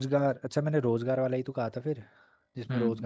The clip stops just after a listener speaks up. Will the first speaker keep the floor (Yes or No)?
No